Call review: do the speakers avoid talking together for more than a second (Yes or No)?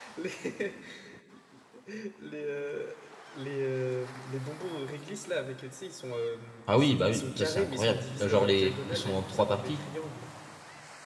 No